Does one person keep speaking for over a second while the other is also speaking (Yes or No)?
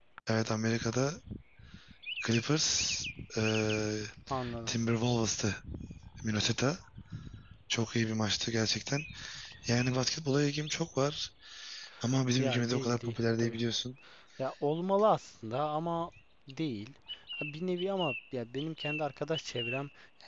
Yes